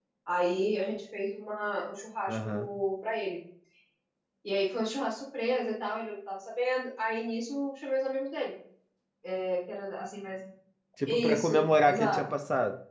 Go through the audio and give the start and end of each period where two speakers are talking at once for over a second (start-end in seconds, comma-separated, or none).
11.1-12.3